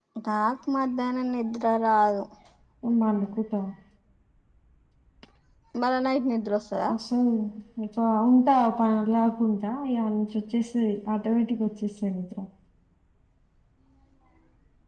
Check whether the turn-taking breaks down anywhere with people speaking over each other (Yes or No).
No